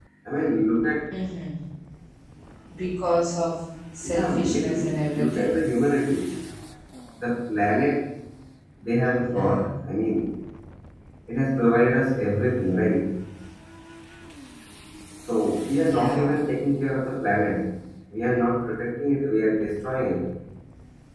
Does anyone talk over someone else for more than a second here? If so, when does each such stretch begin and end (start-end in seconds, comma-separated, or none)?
4.0-5.5